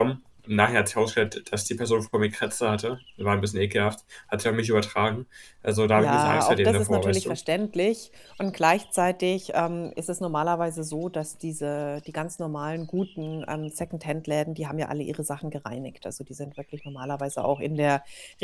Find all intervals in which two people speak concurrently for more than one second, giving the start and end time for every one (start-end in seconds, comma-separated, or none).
6.0-7.4